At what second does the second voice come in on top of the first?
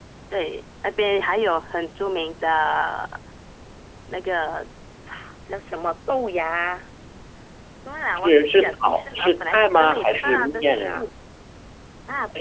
8.2 s

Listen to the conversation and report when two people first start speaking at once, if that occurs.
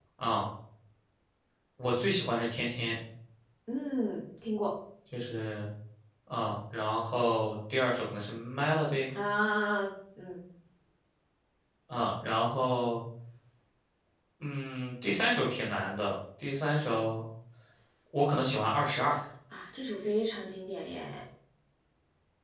none

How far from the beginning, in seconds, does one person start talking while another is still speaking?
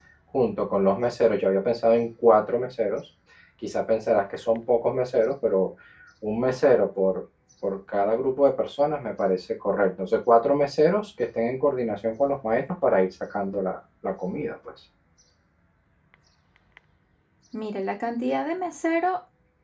none

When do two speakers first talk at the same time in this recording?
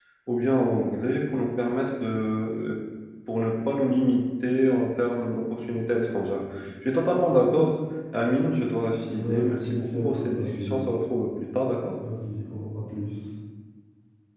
9.0 s

